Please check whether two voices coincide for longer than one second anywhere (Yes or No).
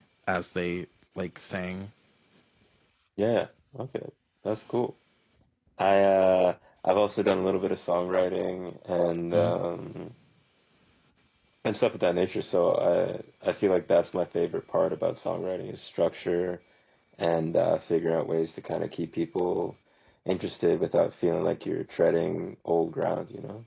No